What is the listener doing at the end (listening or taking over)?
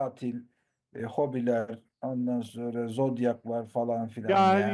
taking over